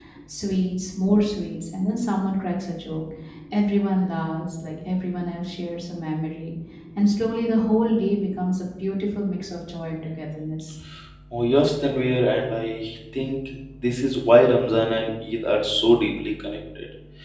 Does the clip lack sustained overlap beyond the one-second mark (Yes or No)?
Yes